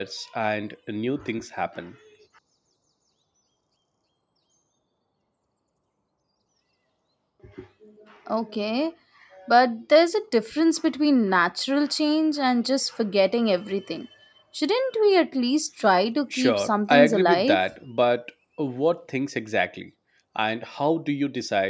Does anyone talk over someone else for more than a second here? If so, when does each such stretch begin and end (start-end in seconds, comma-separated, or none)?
16.3-17.6